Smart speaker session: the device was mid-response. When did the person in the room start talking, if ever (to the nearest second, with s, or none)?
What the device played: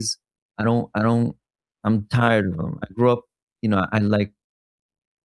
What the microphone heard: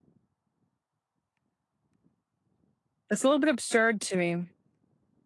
3 s